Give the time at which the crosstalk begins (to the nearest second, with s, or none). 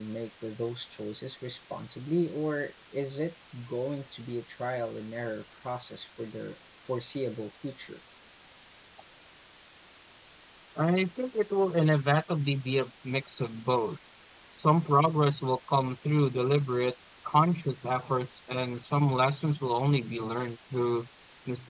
none